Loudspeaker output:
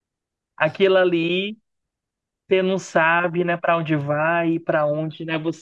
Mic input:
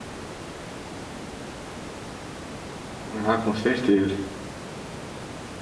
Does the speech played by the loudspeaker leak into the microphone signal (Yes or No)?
No